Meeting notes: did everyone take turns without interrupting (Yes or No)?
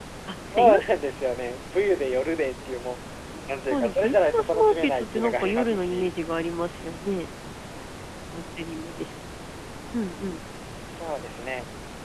No